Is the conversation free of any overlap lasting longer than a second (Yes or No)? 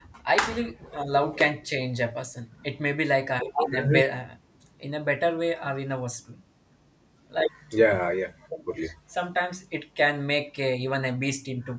Yes